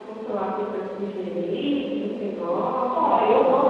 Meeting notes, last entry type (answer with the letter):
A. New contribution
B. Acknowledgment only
A